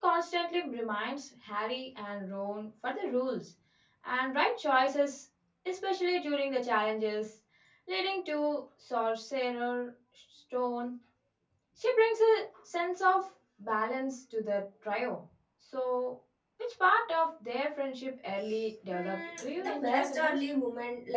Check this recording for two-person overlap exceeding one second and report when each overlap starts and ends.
18.9-20.4

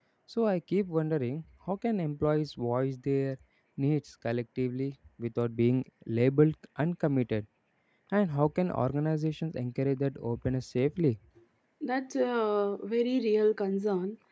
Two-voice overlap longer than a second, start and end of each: none

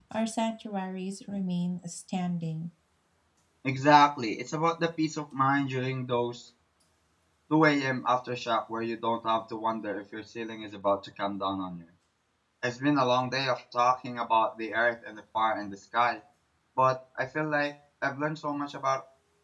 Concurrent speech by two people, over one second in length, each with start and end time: none

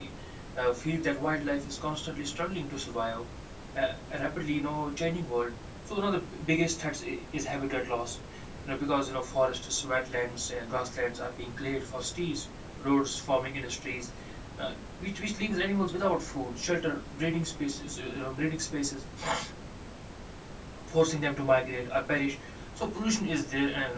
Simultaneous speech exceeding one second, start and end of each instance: none

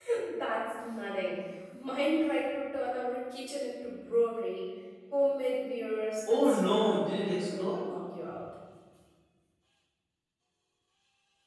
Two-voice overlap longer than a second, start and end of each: 6.3-7.9

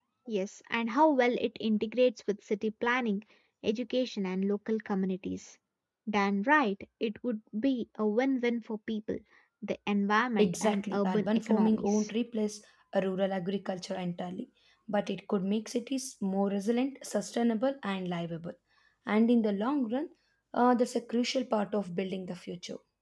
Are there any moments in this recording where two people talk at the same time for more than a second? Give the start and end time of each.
10.4-12.1

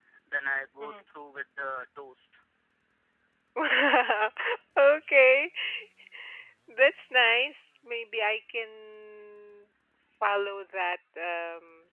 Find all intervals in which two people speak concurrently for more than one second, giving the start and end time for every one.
none

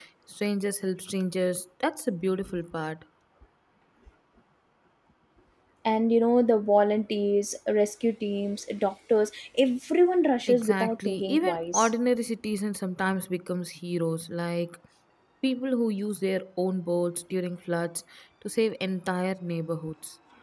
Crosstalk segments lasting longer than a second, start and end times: 10.5-11.9

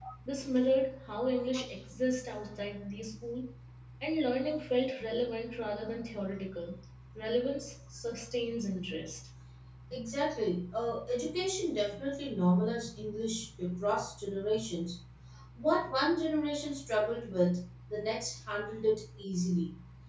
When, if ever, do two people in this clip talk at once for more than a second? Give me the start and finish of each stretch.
none

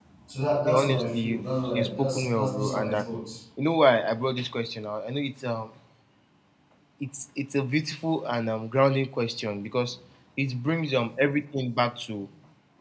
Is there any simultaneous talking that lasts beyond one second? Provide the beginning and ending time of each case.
0.6-3.0

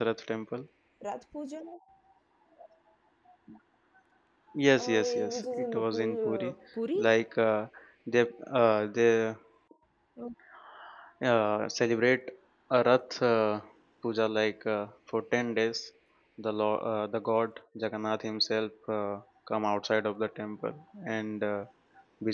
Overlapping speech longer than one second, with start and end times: 4.8-6.5

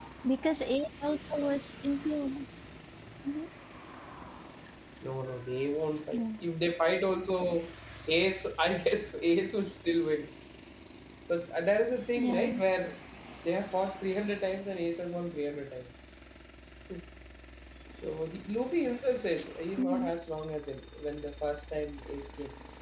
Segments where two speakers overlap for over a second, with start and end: none

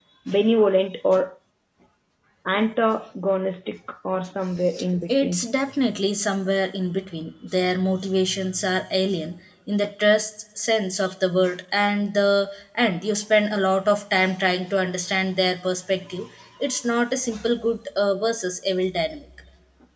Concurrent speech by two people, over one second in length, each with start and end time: none

